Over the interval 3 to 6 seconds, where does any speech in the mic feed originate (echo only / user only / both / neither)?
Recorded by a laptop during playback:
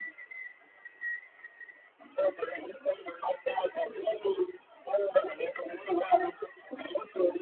echo only